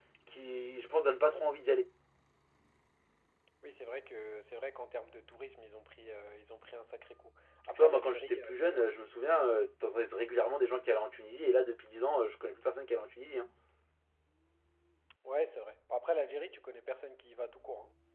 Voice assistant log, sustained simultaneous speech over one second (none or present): present